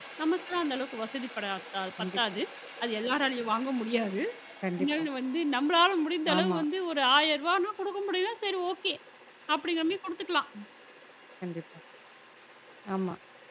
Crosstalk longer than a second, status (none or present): none